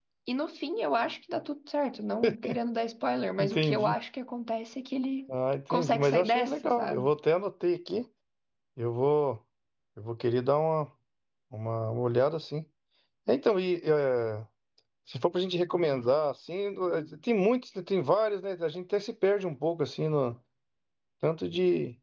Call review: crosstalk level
present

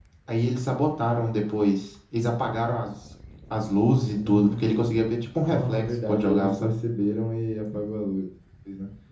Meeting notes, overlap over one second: present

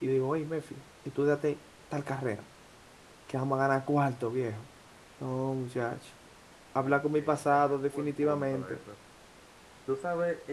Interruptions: present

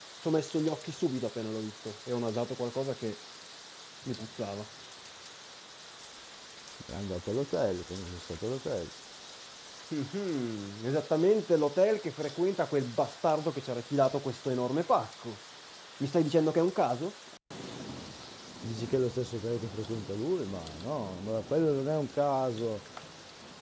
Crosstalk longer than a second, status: none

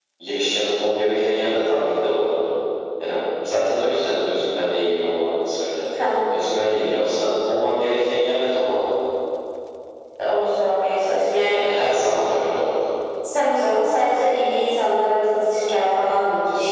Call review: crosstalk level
none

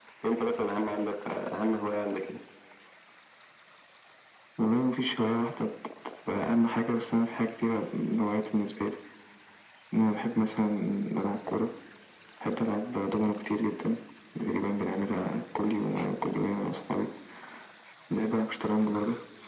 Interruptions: none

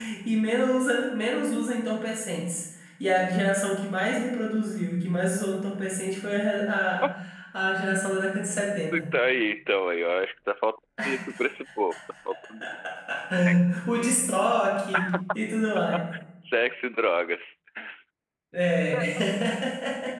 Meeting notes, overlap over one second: none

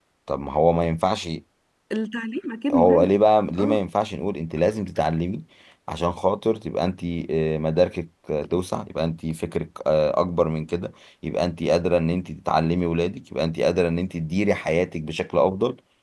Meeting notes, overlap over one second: none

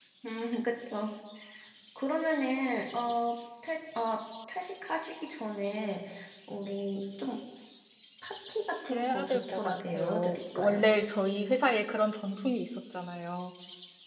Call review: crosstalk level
present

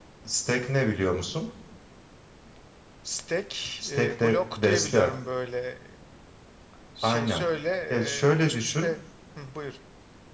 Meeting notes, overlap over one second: present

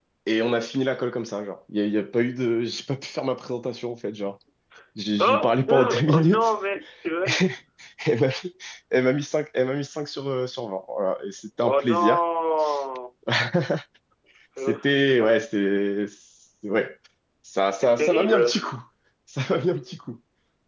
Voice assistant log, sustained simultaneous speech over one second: present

